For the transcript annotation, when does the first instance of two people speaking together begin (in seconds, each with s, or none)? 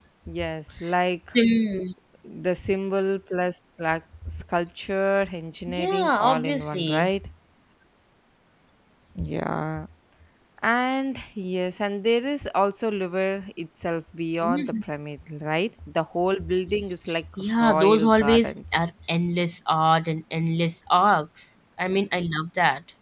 5.7 s